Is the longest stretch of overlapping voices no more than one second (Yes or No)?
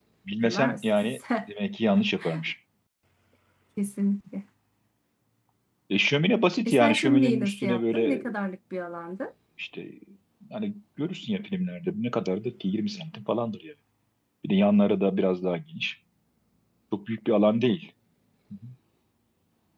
No